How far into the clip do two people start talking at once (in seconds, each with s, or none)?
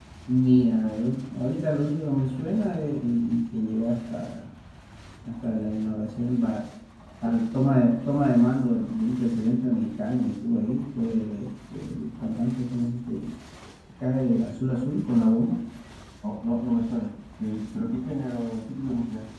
none